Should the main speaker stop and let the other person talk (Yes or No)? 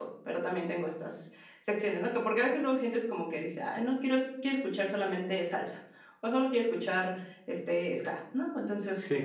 No